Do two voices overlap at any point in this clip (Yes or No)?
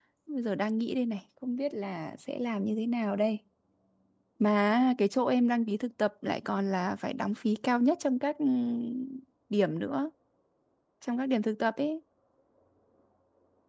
No